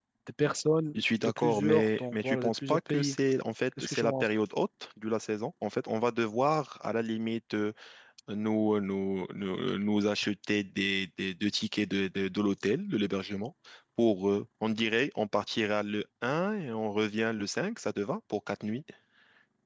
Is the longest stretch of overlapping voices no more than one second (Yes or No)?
No